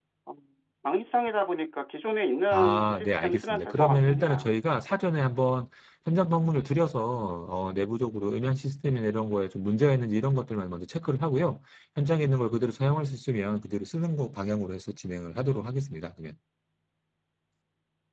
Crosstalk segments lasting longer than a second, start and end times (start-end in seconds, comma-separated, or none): 2.5-4.4